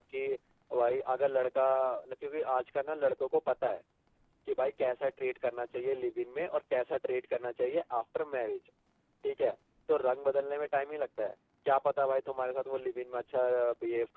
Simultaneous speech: No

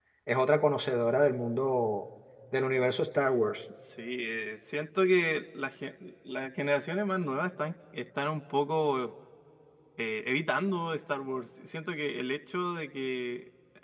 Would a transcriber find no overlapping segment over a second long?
Yes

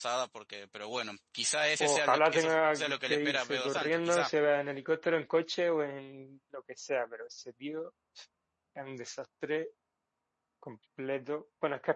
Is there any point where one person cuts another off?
Yes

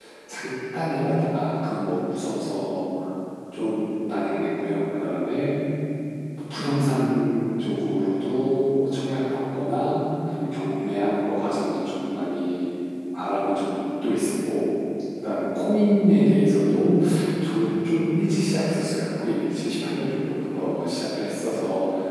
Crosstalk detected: No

